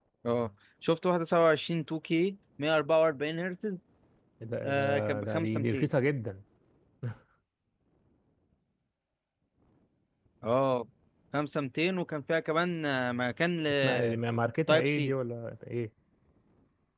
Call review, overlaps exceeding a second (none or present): present